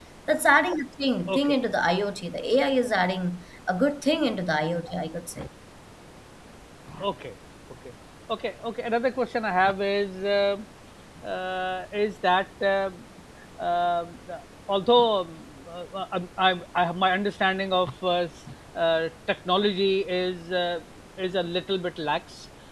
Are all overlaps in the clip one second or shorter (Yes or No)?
Yes